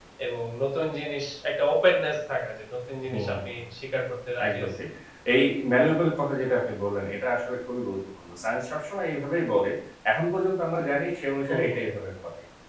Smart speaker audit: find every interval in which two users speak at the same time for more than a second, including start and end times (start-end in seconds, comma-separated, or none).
none